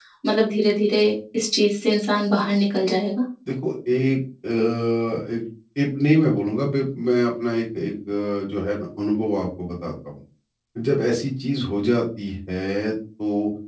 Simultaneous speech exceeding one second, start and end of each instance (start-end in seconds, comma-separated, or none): none